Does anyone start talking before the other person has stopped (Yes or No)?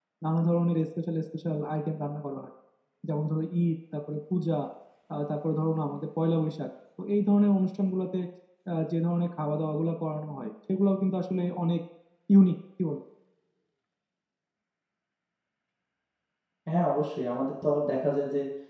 No